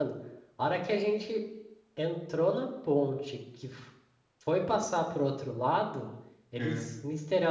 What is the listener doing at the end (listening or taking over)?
listening